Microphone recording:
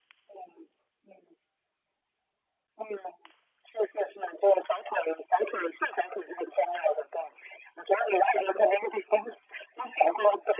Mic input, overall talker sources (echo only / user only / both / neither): echo only